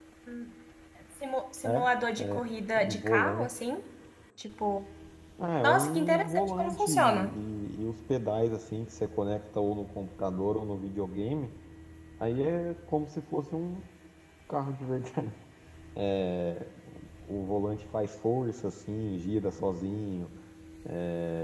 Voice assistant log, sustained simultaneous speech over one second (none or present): present